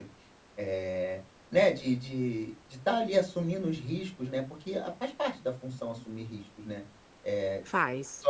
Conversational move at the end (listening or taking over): listening